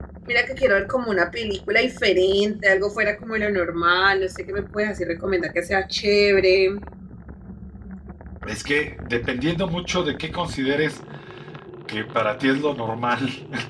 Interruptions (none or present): none